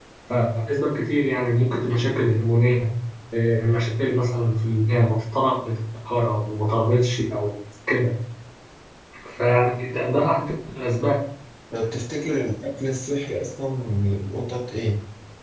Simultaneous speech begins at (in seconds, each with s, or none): none